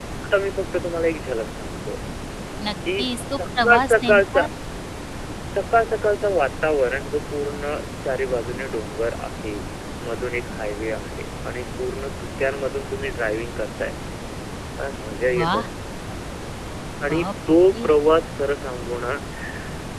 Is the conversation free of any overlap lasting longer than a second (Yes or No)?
No